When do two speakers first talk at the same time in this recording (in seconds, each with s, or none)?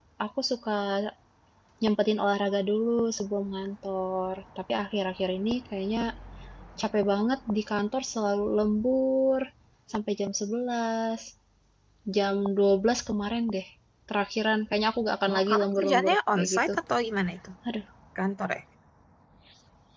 15.2 s